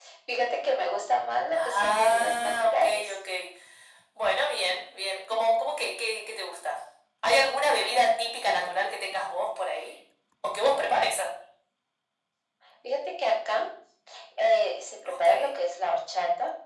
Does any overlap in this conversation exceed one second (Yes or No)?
Yes